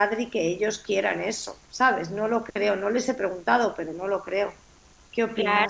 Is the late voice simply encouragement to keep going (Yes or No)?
No